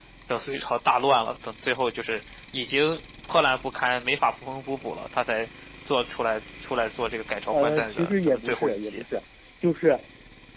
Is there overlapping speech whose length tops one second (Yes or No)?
Yes